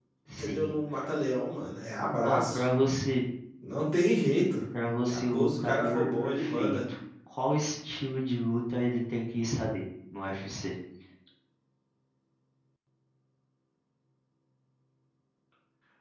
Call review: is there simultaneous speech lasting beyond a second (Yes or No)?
Yes